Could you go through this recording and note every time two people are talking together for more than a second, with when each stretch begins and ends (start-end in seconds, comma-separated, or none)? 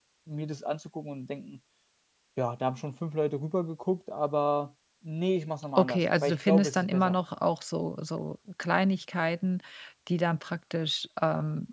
5.8-7.2